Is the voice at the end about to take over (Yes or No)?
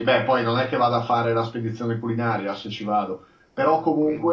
No